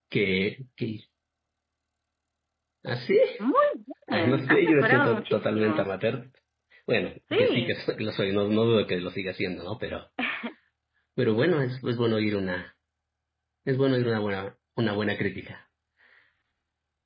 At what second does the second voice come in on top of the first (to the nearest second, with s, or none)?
4 s